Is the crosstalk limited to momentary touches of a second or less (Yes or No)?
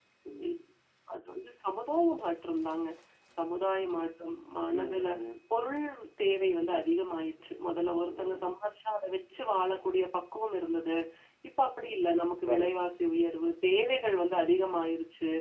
Yes